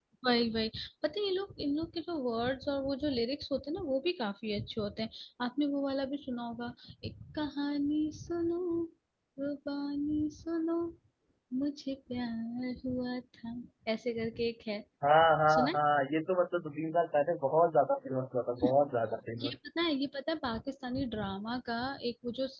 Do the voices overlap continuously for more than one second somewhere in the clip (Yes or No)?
No